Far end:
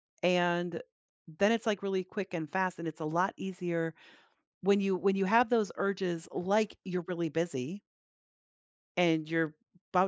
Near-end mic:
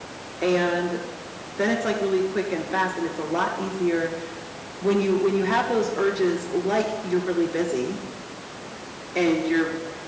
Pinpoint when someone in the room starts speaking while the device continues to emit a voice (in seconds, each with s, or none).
none